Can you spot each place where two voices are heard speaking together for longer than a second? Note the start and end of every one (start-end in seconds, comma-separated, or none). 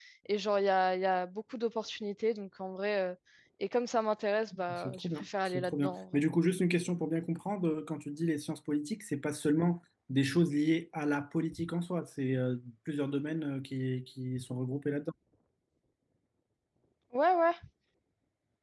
4.8-6.2